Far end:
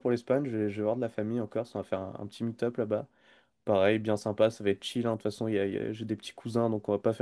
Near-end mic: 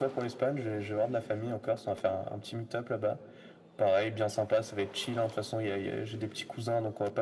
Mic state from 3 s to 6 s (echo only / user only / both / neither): echo only